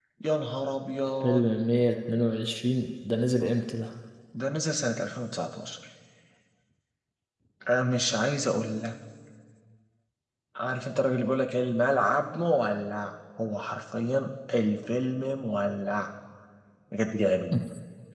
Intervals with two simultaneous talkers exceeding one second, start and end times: none

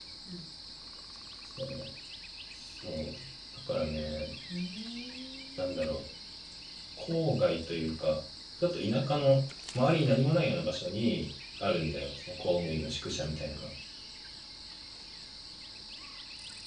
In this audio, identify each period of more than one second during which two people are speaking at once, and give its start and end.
none

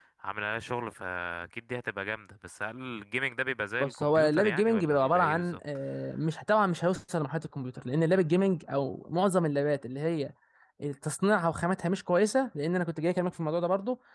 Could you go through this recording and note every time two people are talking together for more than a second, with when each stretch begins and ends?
3.8-5.6

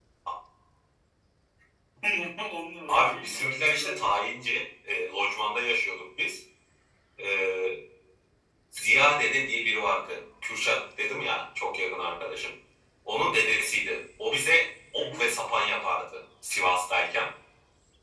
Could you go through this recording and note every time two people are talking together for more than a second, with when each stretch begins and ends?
2.9-4.1

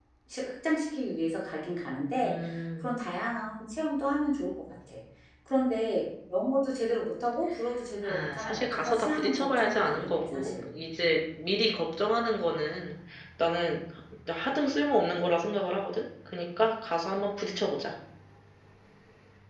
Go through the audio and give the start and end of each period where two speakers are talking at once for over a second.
8.0-10.6

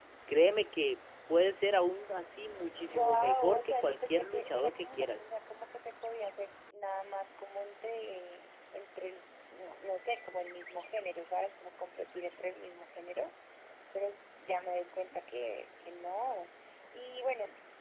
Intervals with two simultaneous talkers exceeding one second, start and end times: 2.9-5.2

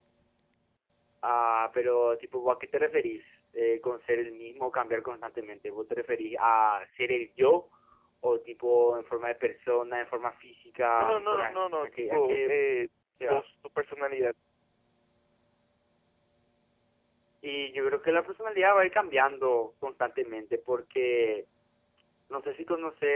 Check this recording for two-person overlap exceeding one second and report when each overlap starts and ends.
11.0-12.5

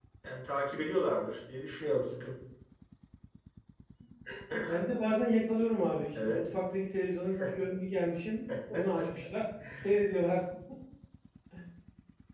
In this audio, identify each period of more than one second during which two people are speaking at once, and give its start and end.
none

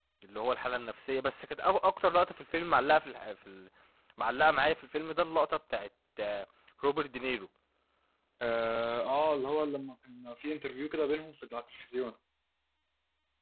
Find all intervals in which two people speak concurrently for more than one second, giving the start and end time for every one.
none

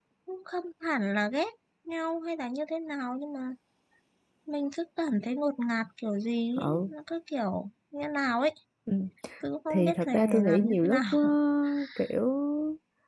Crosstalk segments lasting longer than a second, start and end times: 9.7-11.2

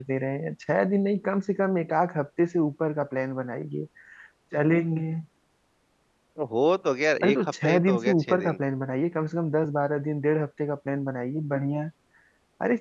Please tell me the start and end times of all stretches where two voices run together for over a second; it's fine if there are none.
7.2-8.6

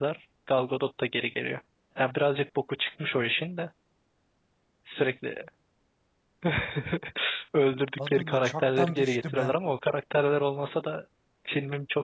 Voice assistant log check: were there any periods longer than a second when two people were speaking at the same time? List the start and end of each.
8.0-9.6

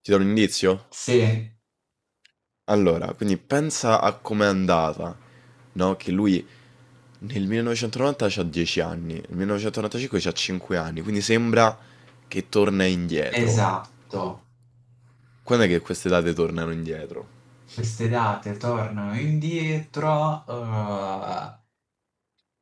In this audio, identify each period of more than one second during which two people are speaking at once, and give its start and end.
none

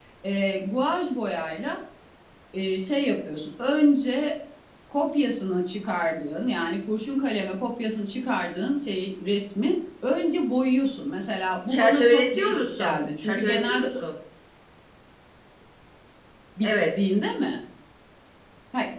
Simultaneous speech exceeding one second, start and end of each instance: 11.7-13.9

